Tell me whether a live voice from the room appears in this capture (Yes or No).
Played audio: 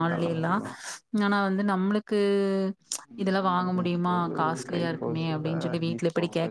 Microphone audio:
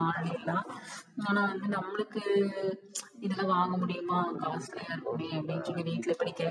No